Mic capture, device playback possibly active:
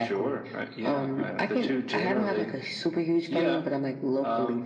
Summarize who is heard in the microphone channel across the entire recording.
echo only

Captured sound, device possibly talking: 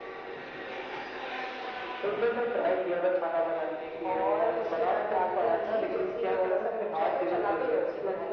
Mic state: echo only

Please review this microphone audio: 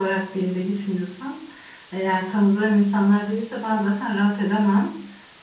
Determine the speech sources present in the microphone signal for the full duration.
echo only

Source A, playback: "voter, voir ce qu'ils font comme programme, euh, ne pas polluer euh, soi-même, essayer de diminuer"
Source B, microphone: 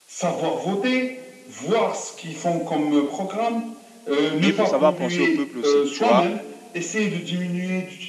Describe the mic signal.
both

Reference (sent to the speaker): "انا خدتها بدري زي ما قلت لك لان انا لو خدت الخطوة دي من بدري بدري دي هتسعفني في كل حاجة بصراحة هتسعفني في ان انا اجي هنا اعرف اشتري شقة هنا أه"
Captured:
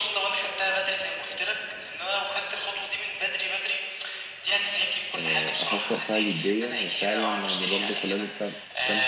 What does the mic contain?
both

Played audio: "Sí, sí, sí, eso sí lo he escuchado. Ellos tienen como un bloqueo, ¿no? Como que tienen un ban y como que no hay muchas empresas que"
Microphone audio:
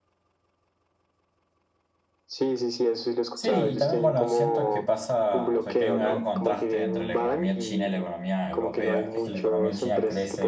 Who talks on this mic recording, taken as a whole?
both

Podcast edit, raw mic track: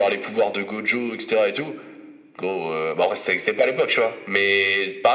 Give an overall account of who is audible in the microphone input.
echo only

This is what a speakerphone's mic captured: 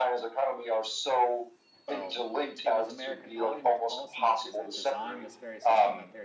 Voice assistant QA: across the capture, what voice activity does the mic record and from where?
both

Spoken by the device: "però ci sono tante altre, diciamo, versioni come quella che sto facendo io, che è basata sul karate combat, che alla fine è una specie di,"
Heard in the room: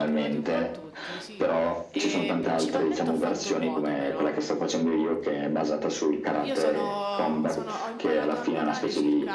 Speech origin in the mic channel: both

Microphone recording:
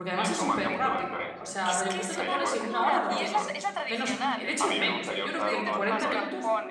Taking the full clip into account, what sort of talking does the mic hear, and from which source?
both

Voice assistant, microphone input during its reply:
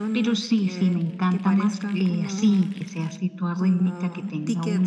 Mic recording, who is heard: echo only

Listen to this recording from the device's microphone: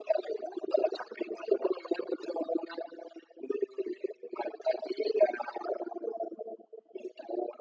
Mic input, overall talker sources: echo only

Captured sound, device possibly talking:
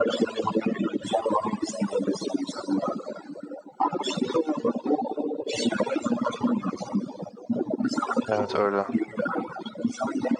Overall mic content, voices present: both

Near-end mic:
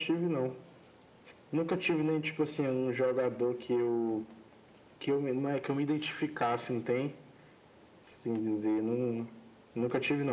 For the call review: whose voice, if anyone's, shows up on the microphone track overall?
echo only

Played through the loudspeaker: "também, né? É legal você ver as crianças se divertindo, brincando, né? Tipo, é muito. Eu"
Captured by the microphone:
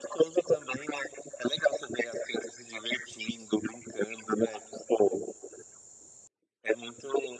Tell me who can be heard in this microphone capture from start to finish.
echo only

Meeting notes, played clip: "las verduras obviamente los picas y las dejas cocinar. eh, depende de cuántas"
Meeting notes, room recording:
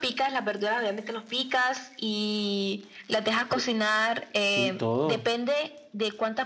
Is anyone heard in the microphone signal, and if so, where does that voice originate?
both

